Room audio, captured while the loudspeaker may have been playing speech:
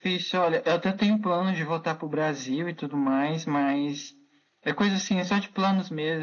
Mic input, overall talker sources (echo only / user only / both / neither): echo only